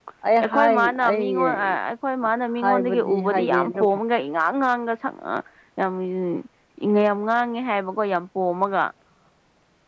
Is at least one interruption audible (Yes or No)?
Yes